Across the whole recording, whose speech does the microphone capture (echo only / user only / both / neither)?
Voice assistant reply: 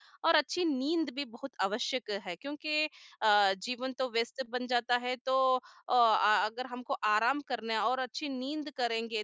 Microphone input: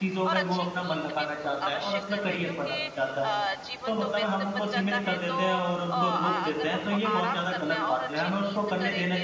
both